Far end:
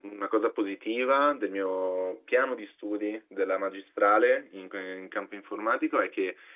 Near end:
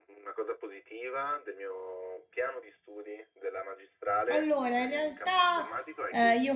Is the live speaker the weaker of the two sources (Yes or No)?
No